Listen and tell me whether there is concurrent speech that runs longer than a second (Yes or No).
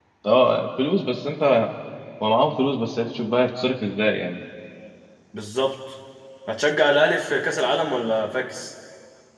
No